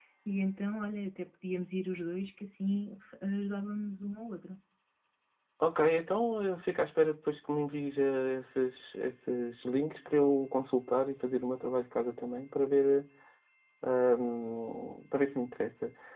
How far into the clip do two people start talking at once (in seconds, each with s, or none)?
none